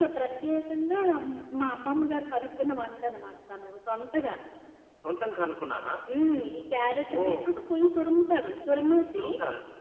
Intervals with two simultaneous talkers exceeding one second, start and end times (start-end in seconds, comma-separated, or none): none